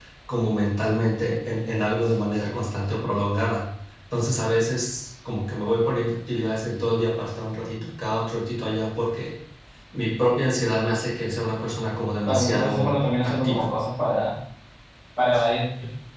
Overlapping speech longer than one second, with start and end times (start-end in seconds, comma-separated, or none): 12.2-13.7